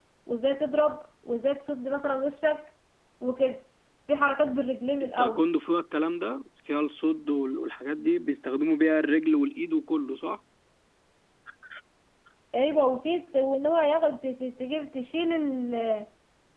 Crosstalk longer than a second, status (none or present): none